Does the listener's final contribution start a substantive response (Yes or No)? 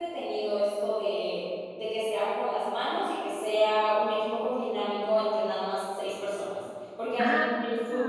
No